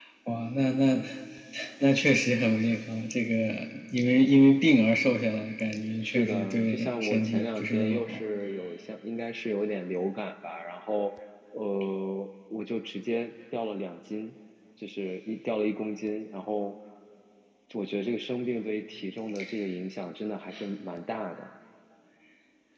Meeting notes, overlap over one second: present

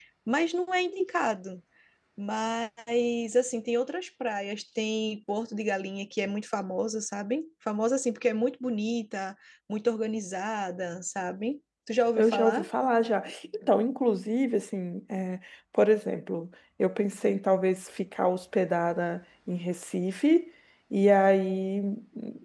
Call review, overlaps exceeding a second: none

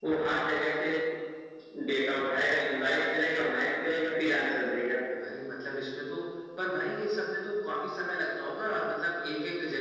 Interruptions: none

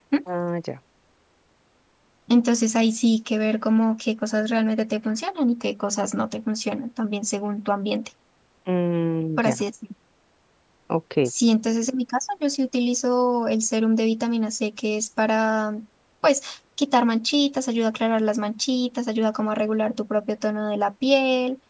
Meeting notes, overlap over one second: none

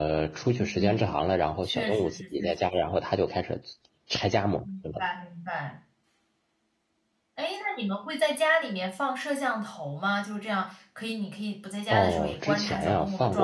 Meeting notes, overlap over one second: present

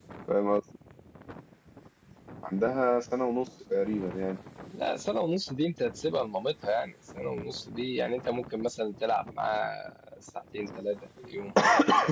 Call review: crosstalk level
none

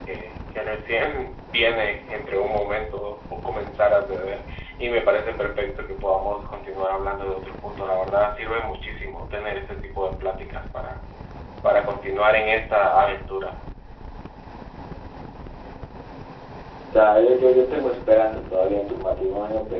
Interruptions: none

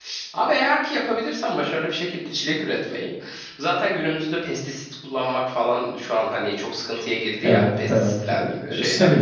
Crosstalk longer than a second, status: present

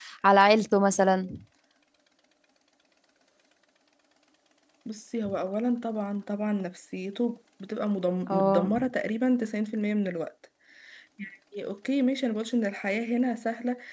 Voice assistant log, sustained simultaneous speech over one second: none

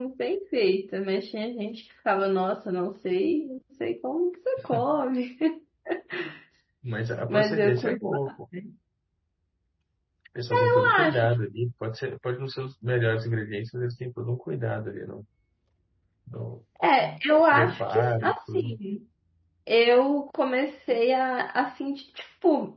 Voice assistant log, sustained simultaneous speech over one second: present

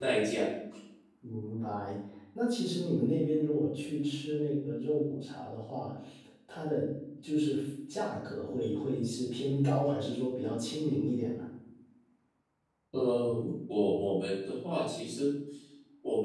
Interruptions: none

